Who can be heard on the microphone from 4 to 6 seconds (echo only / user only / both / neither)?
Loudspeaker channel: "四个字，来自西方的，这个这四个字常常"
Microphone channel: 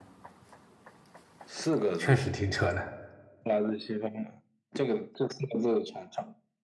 echo only